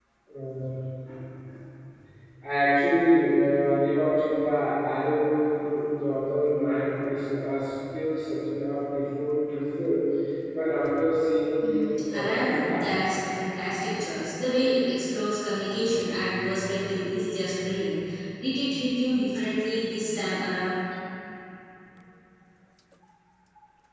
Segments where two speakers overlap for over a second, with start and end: 11.6-13.0

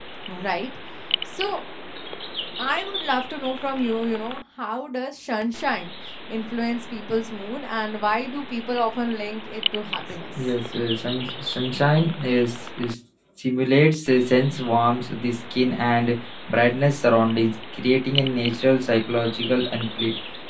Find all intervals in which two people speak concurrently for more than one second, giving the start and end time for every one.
none

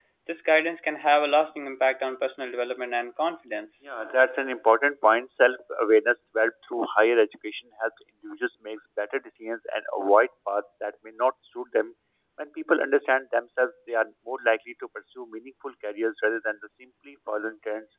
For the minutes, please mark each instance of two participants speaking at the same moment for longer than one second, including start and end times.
none

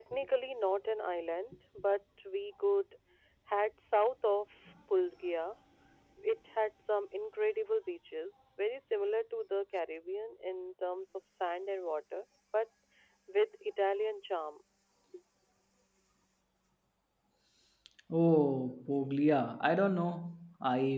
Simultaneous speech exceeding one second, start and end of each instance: none

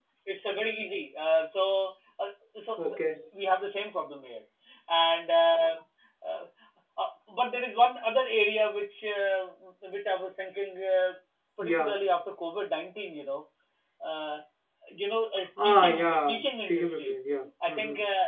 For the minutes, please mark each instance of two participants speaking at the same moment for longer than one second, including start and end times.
15.6-17.2

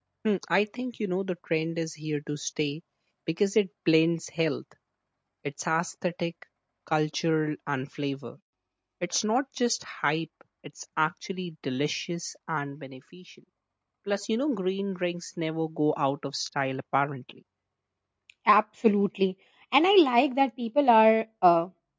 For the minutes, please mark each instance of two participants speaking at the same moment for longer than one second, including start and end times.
none

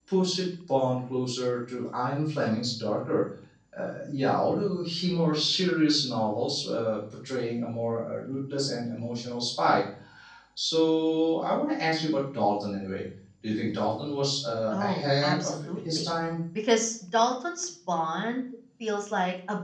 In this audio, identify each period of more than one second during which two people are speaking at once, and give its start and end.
14.7-16.1

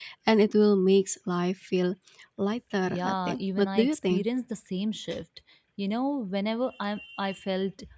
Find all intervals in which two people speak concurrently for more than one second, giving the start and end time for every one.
3.0-4.2

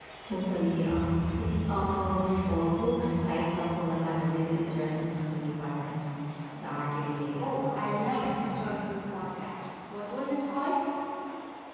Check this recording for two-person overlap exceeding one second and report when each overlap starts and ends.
7.4-8.7

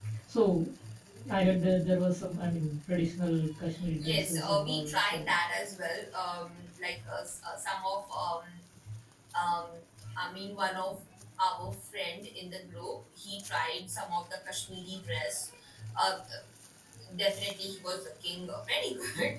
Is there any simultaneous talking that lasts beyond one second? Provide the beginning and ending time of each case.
4.0-5.3

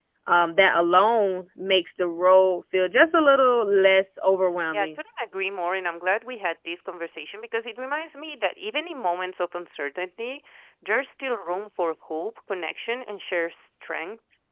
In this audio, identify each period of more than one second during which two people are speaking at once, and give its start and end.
none

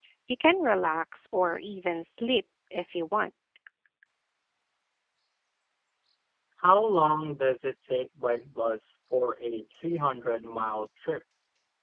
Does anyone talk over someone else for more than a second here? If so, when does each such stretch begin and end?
none

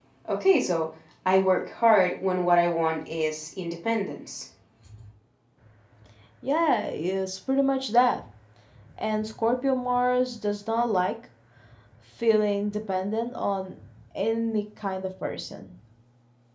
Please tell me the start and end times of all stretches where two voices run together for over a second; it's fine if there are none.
none

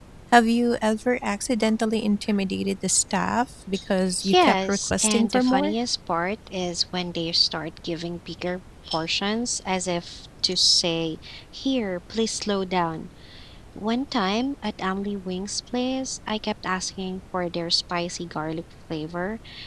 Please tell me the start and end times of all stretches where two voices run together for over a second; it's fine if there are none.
4.3-5.7

